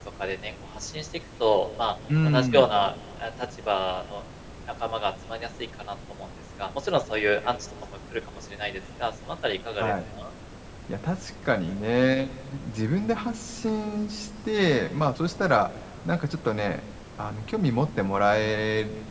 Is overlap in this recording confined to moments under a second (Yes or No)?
Yes